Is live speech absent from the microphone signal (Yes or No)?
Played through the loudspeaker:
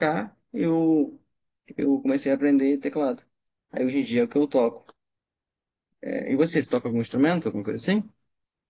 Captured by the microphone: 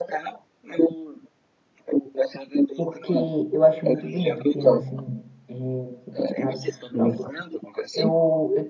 No